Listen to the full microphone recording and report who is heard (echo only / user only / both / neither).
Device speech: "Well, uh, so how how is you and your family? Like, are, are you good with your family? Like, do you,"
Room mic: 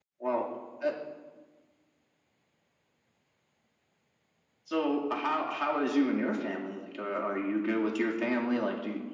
echo only